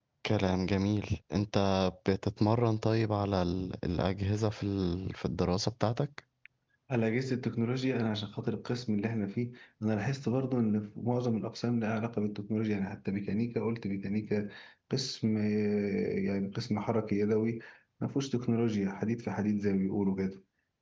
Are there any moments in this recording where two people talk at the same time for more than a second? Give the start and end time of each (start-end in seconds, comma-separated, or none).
none